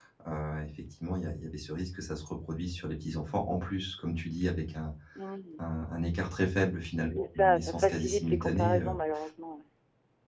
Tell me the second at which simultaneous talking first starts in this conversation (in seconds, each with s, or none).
7.2 s